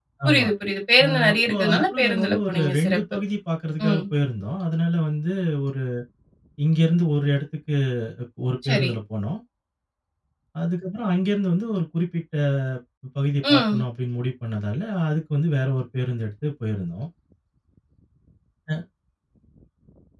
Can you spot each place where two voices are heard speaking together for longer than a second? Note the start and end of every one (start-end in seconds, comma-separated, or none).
1.0-3.0